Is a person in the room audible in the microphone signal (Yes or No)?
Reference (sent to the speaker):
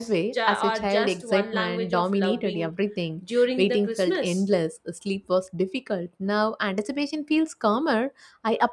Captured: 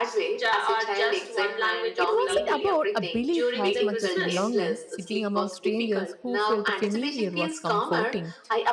Yes